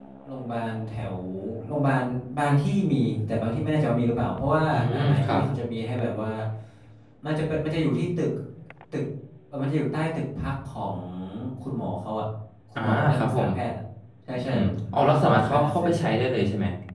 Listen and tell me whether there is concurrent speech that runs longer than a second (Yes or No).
Yes